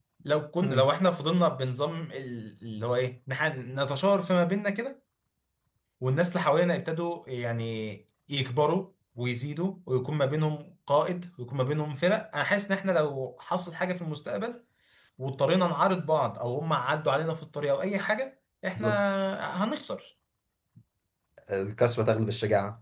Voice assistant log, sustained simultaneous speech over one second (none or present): none